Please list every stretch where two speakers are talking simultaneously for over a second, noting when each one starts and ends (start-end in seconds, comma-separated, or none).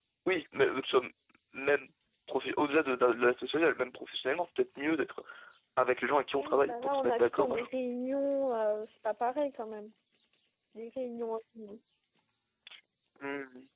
6.3-7.7